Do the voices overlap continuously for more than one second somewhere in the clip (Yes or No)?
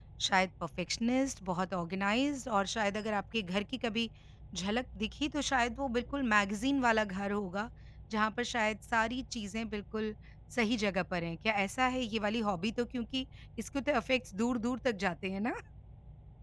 No